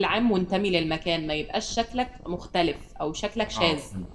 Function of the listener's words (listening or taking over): taking over